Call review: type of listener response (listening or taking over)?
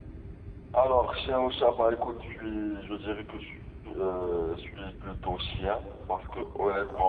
listening